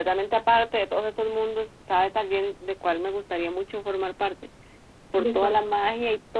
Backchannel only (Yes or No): Yes